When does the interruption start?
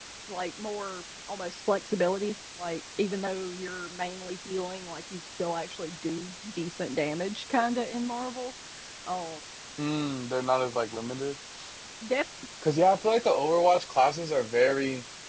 none

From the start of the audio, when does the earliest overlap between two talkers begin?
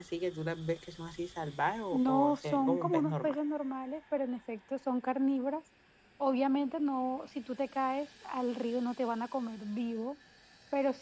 1.9 s

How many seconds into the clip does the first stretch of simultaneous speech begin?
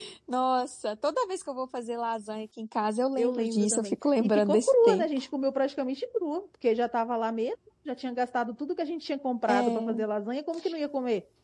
3.2 s

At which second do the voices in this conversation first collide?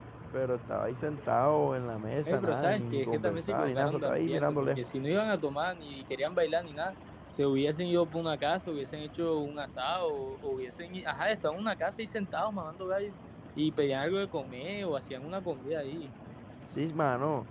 2.3 s

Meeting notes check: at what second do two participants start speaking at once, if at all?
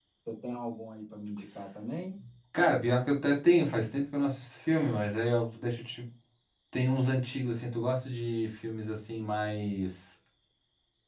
none

